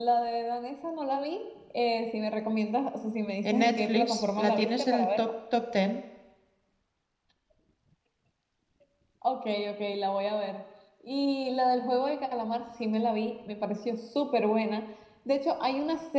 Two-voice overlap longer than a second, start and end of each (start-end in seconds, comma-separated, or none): 3.5-5.3